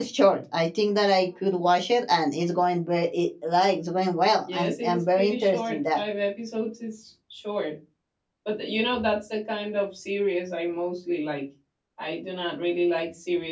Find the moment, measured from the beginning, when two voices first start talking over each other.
4.5 s

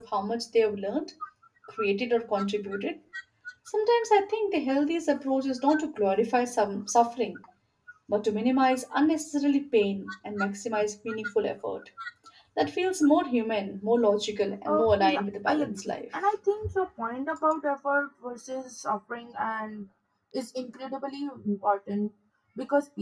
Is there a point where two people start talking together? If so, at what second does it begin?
14.7 s

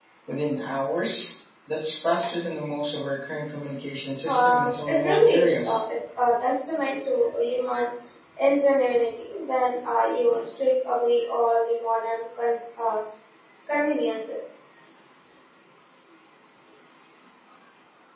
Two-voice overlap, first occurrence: 4.2 s

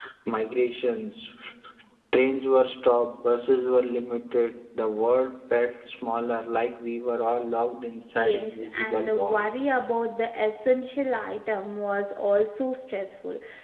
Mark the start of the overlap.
8.2 s

